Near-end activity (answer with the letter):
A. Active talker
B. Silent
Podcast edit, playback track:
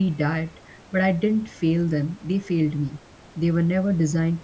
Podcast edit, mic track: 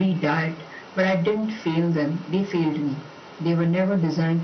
B